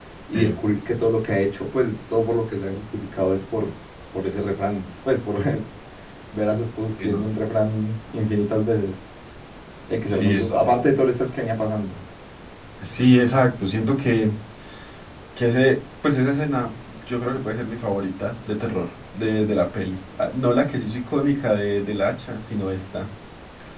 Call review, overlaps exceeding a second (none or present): none